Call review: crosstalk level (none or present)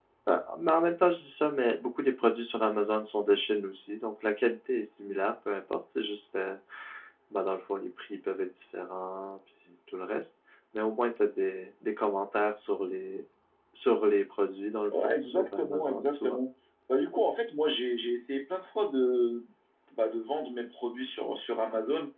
present